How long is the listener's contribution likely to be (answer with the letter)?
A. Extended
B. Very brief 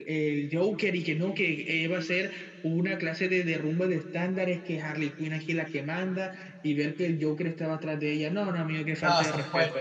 A